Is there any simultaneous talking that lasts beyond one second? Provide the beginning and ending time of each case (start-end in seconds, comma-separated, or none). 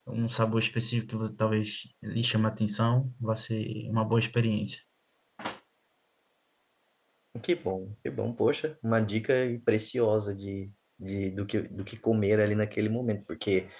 none